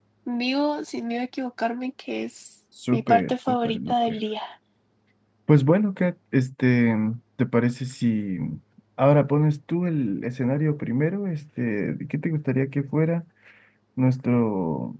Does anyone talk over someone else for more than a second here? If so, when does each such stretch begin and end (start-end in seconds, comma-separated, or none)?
2.9-4.2